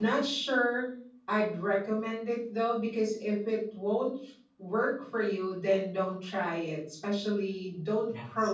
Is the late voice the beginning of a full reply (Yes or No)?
No